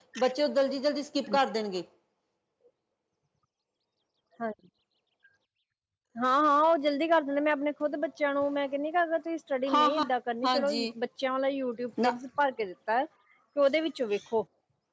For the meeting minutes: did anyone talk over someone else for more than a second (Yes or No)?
No